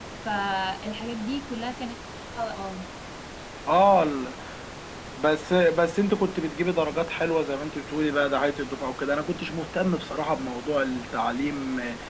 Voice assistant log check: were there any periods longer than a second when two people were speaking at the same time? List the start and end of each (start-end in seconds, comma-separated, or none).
none